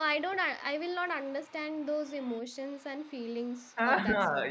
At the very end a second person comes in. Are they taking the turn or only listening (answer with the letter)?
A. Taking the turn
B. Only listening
A